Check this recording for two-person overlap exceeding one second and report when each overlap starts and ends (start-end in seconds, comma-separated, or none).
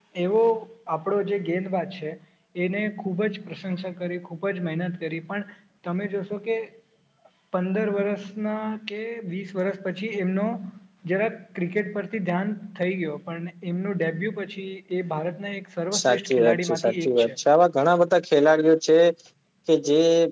16.0-17.3